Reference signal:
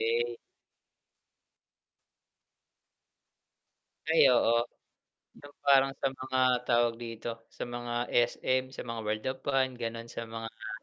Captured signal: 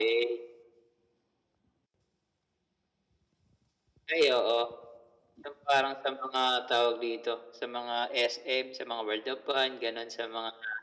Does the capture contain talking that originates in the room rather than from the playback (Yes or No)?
No